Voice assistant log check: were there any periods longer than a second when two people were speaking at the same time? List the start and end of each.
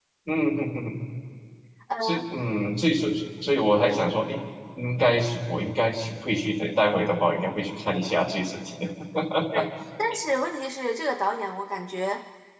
none

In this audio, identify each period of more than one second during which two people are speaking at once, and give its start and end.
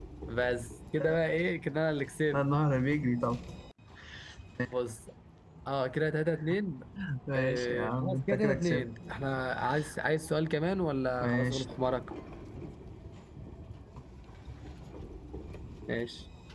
7.3-8.8

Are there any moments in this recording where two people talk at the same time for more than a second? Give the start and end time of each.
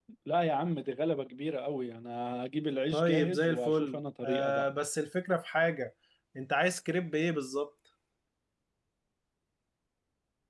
2.9-4.7

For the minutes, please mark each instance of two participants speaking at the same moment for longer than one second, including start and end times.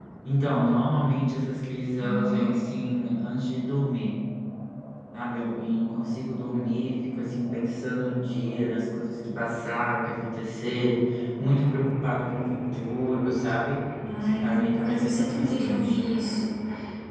14.2-16.0

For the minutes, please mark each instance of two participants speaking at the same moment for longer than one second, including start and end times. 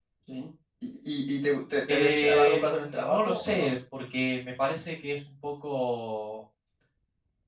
1.9-3.7

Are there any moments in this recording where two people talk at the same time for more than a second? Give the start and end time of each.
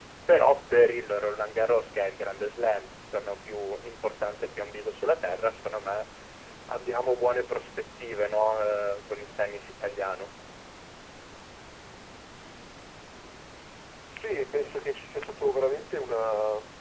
none

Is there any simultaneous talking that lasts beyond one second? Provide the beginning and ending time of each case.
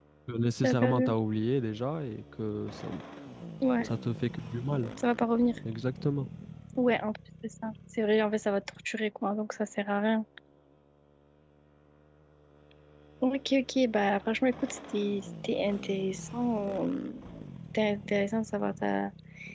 none

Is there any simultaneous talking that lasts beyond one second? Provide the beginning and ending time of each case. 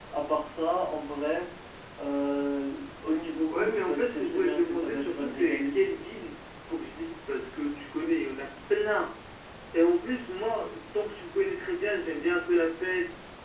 3.5-5.7

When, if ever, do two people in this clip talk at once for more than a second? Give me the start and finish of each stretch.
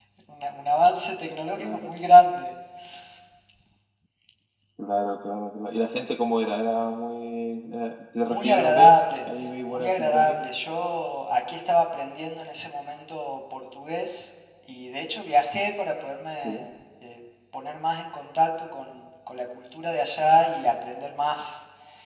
8.3-10.4

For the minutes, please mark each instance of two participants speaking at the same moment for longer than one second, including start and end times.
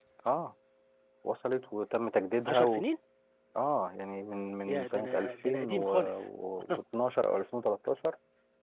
4.7-6.3

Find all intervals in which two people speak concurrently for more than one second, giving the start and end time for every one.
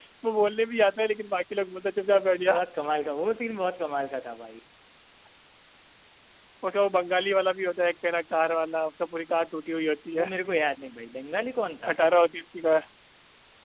none

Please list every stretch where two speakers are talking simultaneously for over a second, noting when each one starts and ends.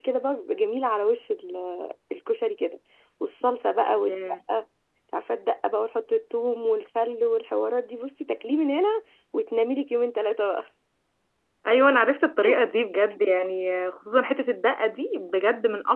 none

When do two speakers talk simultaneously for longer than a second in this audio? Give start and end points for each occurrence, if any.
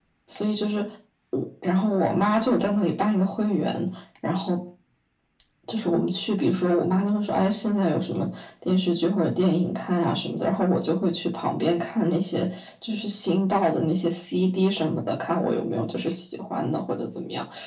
none

